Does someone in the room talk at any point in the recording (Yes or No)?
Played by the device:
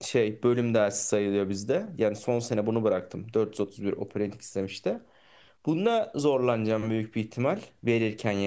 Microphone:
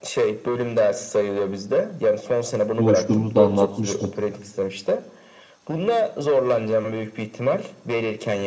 Yes